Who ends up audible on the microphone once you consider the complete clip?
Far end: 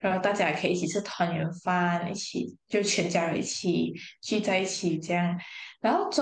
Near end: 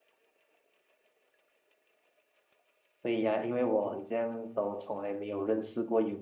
user only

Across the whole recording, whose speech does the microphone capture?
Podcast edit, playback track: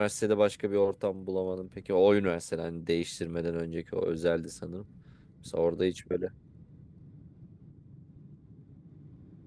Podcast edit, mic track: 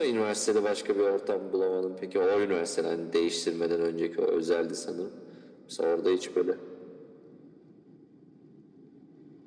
echo only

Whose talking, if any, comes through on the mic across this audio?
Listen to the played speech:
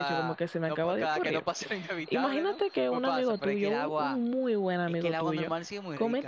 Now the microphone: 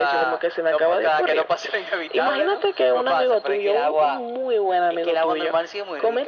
echo only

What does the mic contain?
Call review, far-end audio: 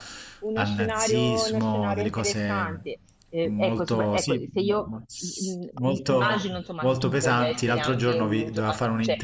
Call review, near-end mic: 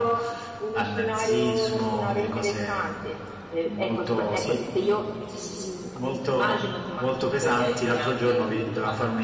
echo only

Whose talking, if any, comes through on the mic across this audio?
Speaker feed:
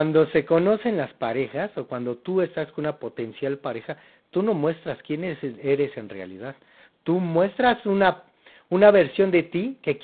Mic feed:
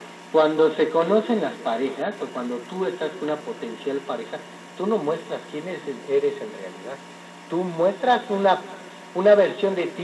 echo only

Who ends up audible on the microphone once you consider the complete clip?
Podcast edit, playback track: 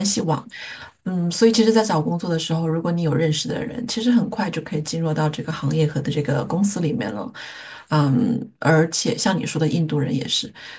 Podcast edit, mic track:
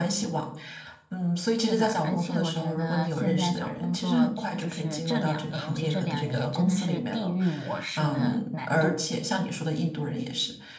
both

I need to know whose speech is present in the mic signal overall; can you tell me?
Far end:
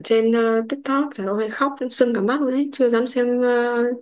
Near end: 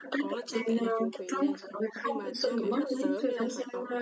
both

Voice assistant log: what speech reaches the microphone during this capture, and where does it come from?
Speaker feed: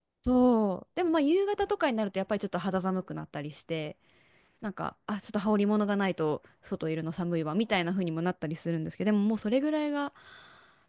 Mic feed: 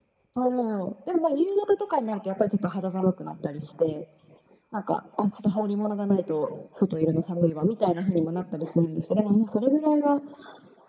echo only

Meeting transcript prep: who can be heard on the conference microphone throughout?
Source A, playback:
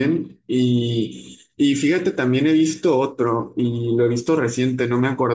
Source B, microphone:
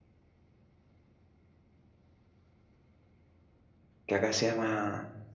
user only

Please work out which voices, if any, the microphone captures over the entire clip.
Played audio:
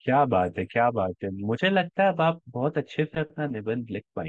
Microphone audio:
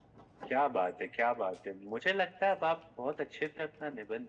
echo only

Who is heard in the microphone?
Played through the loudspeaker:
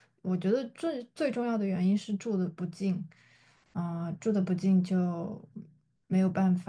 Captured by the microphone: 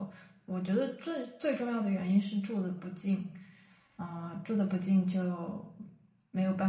echo only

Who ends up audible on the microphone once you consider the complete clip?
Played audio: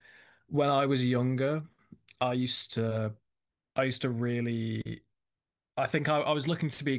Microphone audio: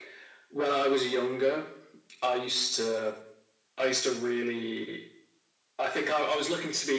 echo only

